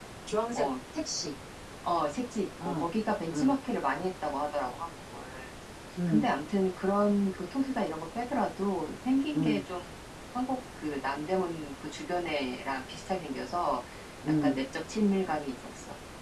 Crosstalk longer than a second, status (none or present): none